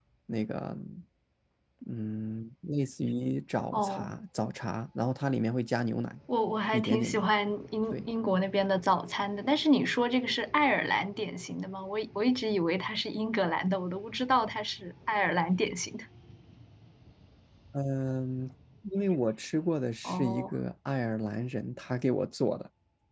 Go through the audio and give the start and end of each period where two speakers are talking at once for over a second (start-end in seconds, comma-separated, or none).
none